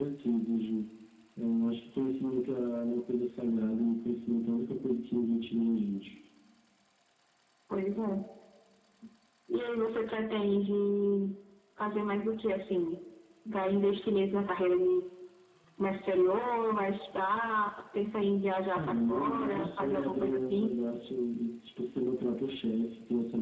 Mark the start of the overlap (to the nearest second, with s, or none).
19 s